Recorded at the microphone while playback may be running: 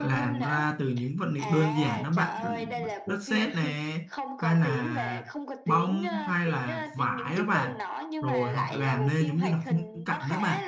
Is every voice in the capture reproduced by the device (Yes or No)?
No